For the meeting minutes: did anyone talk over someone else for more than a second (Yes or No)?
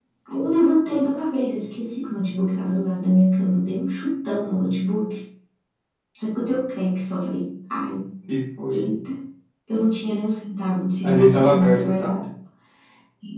Yes